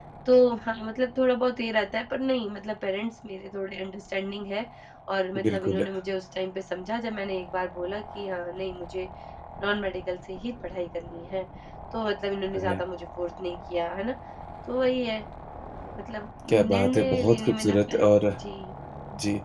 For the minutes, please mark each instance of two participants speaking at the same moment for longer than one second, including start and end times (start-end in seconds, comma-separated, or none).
16.5-18.1